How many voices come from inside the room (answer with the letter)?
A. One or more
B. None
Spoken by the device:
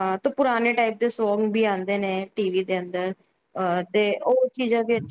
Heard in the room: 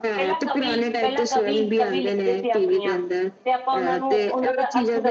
A